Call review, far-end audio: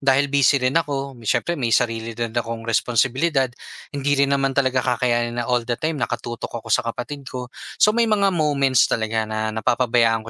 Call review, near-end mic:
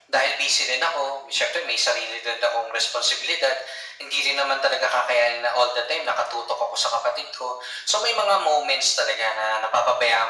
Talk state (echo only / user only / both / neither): echo only